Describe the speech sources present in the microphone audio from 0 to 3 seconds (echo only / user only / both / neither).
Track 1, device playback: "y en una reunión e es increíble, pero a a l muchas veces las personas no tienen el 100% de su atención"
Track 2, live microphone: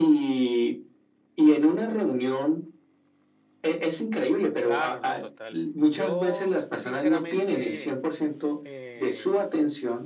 echo only